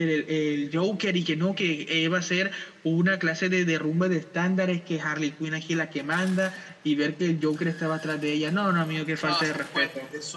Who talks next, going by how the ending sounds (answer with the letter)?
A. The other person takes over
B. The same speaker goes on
A